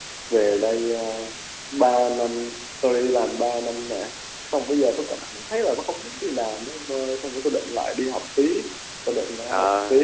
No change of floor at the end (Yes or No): No